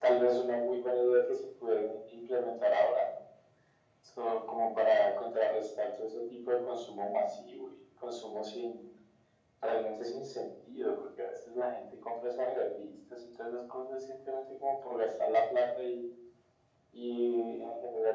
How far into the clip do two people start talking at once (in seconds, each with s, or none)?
none